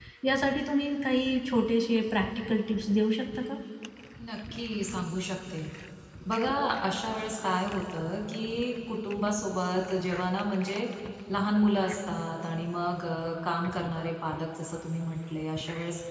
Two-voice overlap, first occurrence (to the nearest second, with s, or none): none